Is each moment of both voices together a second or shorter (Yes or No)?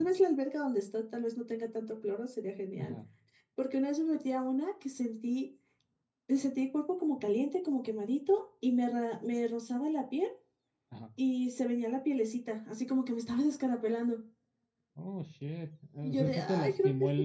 No